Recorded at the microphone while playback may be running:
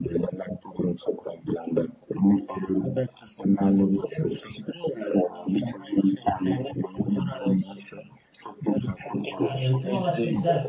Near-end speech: present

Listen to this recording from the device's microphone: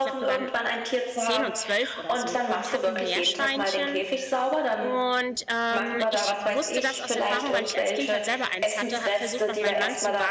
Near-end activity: present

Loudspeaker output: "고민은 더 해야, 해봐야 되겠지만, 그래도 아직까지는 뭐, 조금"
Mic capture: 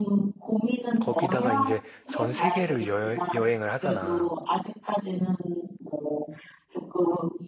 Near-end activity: present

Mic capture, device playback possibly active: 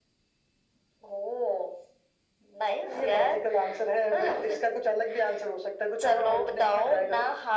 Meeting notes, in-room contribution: none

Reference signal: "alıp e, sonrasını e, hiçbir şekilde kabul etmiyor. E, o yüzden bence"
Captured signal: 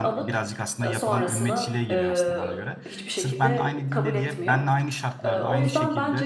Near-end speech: present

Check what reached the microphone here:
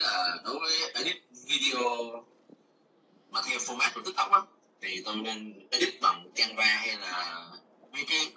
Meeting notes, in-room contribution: none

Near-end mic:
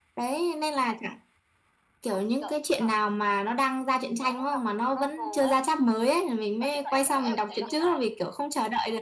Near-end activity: present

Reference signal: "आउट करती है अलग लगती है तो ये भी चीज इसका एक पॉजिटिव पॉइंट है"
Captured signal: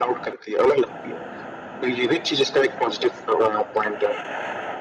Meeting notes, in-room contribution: none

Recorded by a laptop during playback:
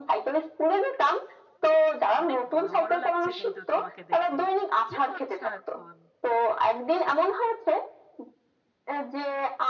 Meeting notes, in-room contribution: present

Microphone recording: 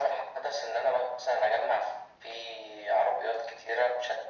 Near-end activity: none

